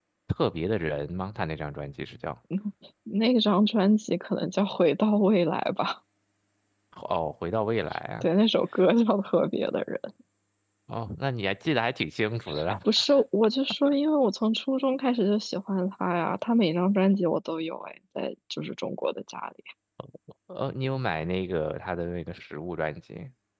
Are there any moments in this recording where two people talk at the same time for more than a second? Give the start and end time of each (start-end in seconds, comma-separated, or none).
none